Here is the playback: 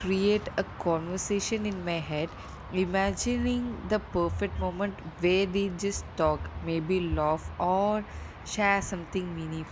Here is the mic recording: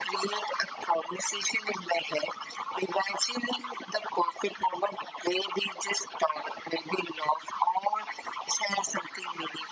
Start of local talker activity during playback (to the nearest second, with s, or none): none